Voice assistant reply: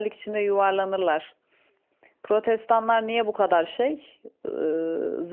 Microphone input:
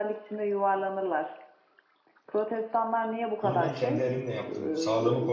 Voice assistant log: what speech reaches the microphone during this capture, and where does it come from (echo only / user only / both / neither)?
both